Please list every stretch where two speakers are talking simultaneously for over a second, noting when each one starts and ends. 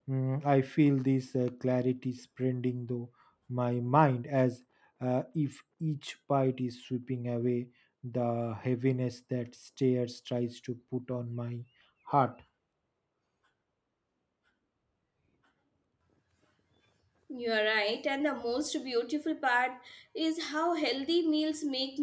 none

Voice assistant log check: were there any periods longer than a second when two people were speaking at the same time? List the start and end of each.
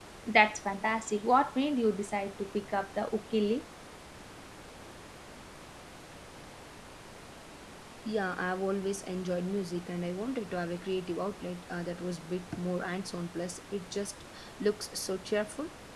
none

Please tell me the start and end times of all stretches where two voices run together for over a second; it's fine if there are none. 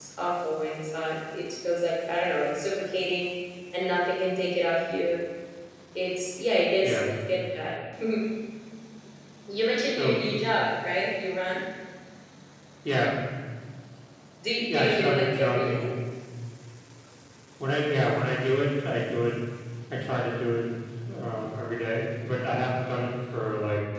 14.7-15.9

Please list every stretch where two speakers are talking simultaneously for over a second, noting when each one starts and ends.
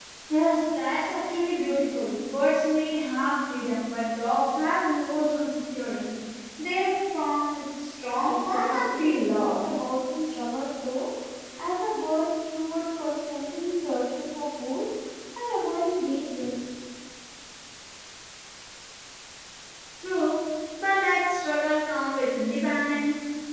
8.2-9.6

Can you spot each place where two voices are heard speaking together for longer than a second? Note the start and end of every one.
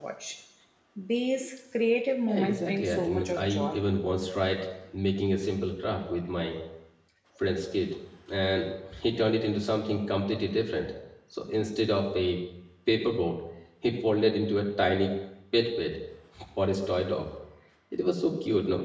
2.2-3.8

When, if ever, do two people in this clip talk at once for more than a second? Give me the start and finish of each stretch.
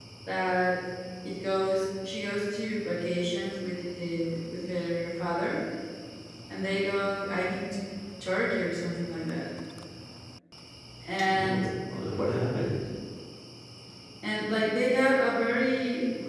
none

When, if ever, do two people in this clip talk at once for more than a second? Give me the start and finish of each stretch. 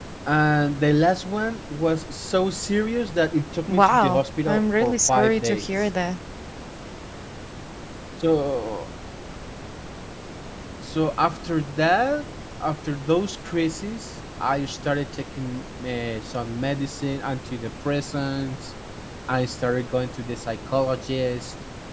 3.7-5.9

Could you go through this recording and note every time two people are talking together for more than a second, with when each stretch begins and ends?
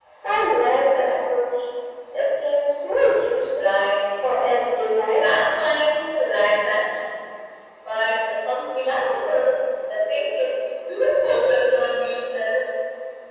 none

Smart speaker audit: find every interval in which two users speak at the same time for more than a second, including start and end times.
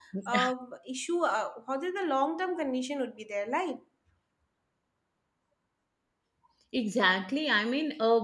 none

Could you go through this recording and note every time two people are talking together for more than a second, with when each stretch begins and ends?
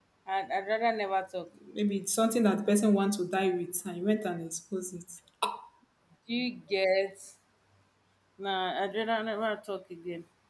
none

